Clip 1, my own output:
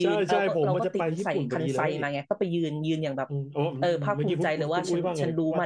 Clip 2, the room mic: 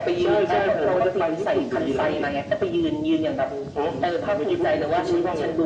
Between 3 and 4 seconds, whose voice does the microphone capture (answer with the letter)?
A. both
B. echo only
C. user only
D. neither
B